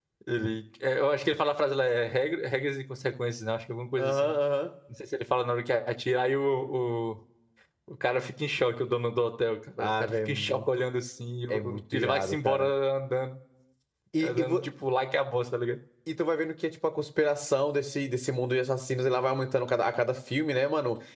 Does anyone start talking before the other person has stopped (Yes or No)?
Yes